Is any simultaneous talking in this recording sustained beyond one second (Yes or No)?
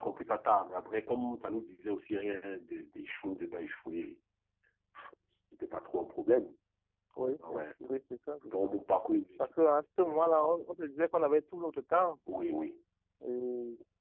No